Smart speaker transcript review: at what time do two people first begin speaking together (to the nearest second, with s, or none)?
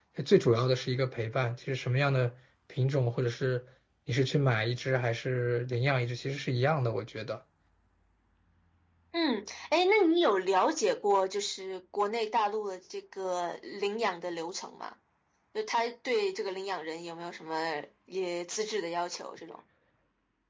none